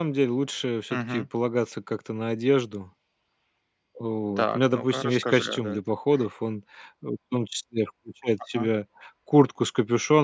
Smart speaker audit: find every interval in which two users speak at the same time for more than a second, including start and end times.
4.4-5.8

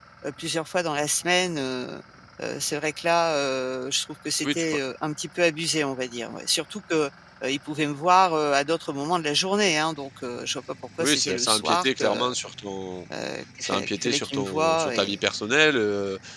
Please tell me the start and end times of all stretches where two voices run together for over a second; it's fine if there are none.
11.0-12.3, 13.6-15.2

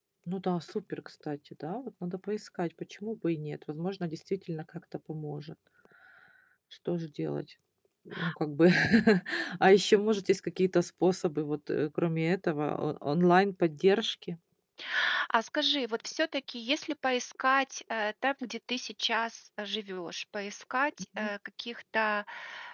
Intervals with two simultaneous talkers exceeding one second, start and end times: none

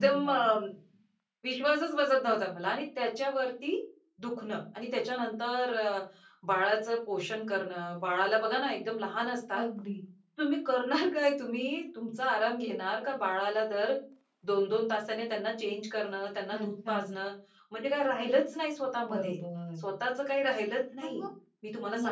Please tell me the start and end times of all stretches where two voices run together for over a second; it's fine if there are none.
none

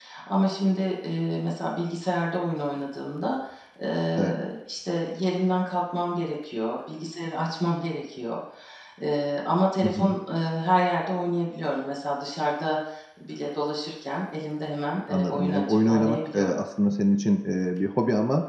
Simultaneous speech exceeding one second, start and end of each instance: 15.1-16.6

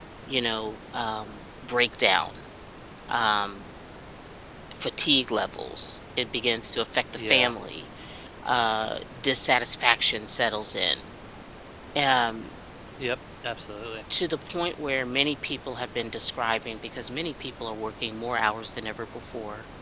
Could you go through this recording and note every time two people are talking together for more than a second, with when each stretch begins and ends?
none

